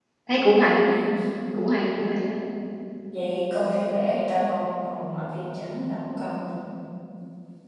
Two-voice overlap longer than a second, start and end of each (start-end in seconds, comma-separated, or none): none